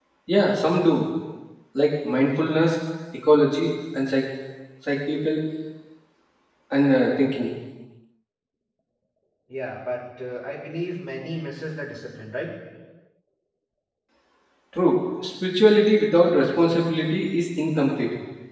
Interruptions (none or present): none